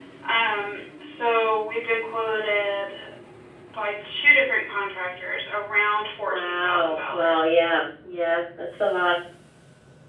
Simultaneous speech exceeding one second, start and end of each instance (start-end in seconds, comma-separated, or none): 6.3-7.5